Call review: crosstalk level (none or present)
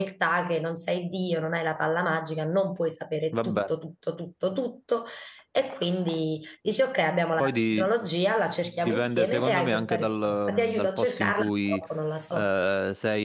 present